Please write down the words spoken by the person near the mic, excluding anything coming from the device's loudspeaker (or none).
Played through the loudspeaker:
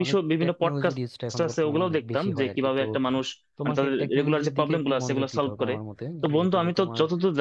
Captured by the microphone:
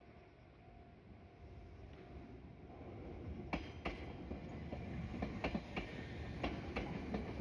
none